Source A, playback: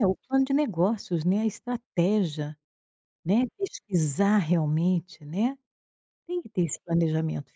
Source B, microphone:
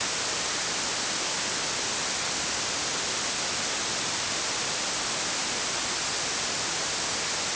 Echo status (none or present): none